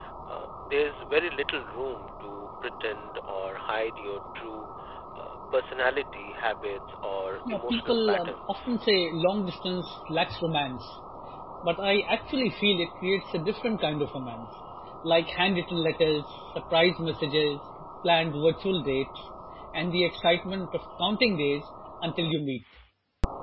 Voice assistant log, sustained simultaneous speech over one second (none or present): present